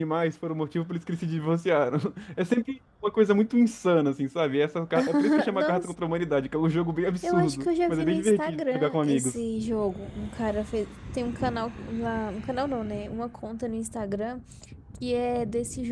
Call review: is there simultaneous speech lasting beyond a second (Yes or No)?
Yes